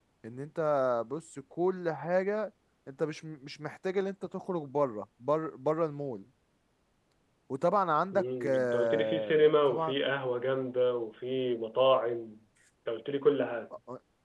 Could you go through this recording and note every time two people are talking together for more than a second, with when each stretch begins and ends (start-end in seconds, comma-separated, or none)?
8.1-9.9